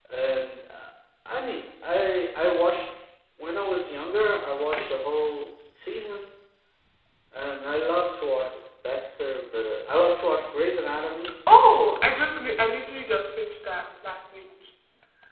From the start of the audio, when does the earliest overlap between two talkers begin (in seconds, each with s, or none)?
none